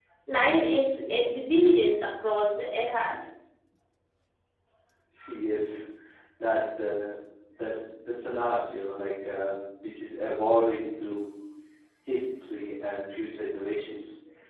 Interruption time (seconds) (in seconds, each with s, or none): none